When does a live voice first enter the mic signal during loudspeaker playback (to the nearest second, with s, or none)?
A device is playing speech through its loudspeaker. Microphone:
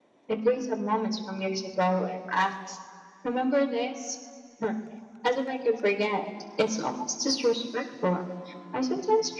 none